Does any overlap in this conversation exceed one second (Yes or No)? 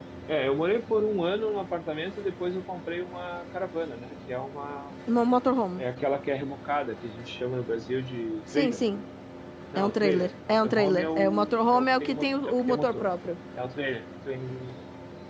Yes